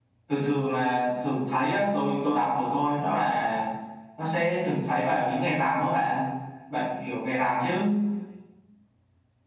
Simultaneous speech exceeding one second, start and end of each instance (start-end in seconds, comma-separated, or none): none